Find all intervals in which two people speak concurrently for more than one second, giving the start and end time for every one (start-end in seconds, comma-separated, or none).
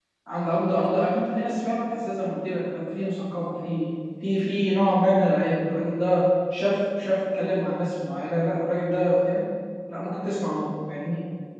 none